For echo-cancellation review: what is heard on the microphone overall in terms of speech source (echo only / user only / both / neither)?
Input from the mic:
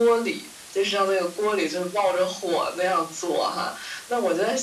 echo only